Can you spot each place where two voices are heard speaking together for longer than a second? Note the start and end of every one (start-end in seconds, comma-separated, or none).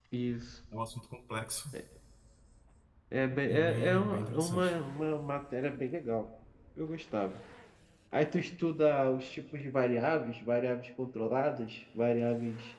3.5-4.7